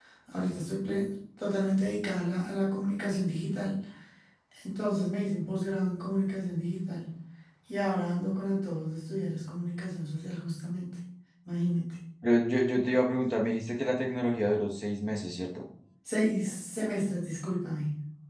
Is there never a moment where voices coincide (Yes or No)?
Yes